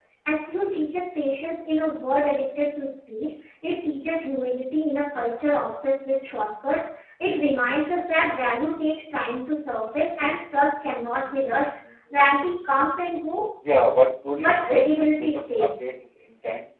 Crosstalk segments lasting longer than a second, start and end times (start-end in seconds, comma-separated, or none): 14.4-15.7